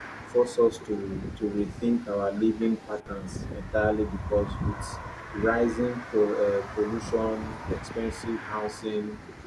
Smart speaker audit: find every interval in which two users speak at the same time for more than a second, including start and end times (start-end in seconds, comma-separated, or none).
none